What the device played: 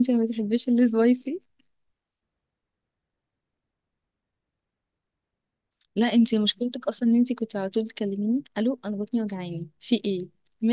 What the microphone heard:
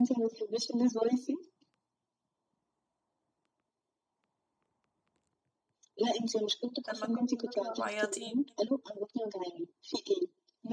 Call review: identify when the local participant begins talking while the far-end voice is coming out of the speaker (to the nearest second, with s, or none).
7 s